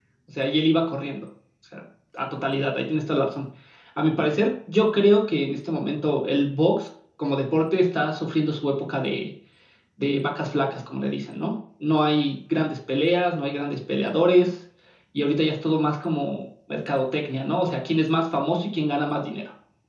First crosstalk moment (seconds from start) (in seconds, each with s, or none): none